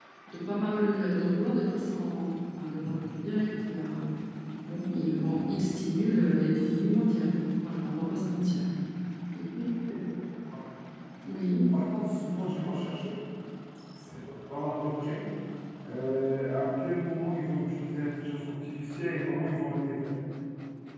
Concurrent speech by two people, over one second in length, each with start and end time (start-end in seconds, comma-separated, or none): none